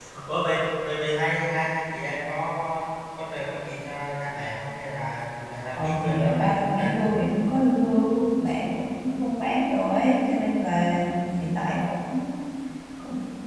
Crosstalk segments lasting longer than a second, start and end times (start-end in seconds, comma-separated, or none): 5.8-7.0